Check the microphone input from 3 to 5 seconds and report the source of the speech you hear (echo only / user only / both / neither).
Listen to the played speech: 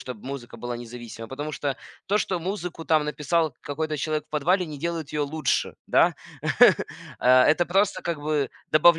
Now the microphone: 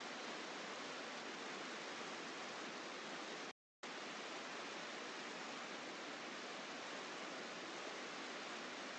neither